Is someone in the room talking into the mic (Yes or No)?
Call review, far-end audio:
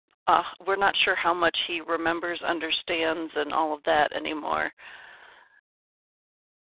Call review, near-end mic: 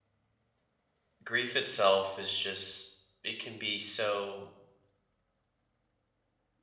Yes